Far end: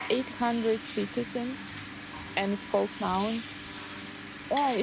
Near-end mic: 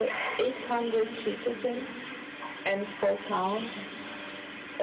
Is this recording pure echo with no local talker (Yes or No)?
Yes